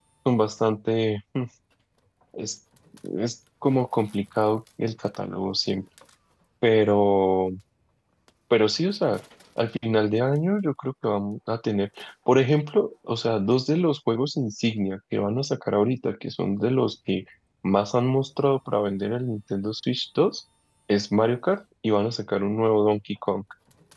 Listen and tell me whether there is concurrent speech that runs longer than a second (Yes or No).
No